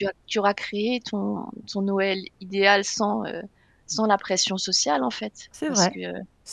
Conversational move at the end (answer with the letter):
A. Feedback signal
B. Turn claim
B